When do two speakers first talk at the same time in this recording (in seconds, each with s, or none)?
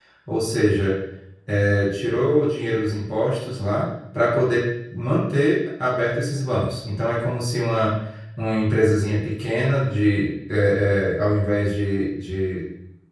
none